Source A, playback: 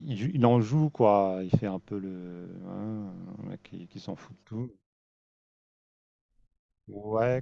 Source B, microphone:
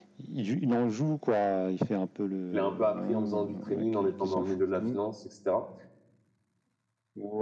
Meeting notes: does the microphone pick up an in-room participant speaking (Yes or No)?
Yes